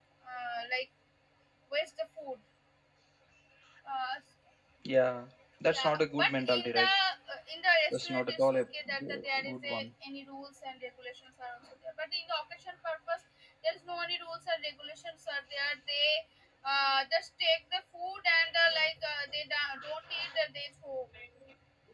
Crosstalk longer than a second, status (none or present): present